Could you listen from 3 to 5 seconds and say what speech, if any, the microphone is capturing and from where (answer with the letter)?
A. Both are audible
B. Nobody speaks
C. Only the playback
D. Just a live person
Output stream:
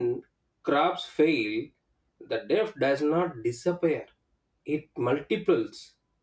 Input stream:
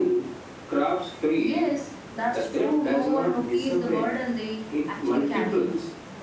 A